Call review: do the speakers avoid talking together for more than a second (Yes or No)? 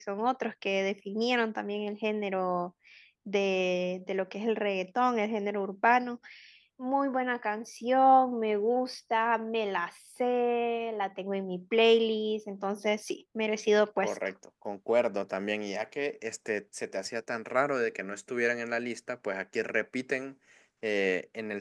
Yes